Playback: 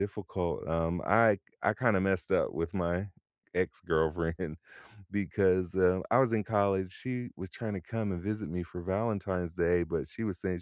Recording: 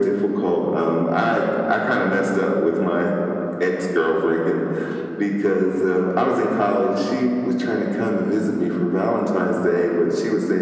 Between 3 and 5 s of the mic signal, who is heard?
echo only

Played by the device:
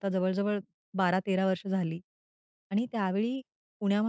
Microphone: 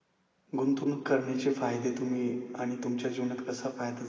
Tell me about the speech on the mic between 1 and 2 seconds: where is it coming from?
user only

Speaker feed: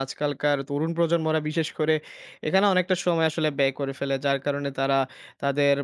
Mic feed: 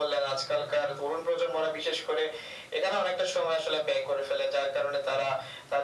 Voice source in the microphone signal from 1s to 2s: echo only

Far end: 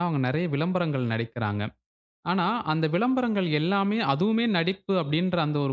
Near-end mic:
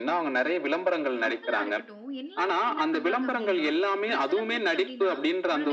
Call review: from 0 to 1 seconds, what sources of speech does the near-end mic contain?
echo only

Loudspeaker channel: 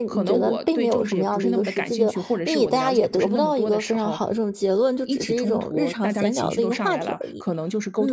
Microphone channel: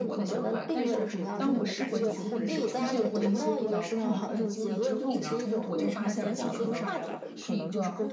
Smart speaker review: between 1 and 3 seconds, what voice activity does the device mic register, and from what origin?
both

